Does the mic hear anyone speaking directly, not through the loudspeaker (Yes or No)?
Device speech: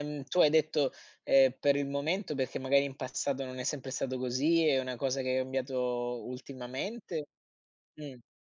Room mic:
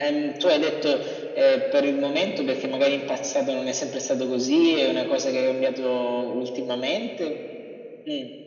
No